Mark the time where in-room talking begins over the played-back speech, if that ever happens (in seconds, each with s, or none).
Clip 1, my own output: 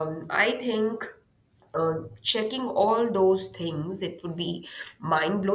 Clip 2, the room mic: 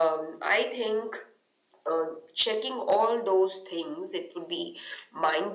none